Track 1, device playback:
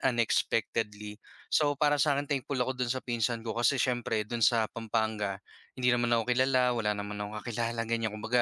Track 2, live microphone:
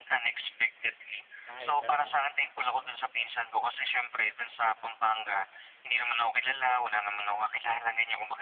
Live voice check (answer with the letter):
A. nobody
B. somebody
B